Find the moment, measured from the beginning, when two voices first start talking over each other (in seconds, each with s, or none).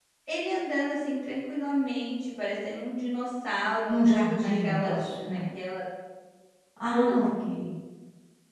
3.9 s